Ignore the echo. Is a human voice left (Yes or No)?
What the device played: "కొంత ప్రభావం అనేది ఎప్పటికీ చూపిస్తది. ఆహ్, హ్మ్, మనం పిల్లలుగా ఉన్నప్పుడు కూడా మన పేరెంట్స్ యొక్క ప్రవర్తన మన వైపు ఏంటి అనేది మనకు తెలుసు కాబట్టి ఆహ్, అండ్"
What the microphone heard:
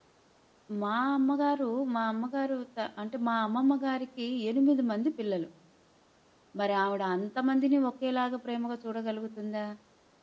Yes